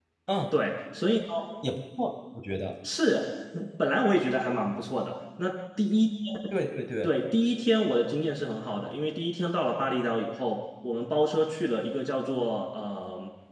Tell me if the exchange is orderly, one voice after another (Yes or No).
Yes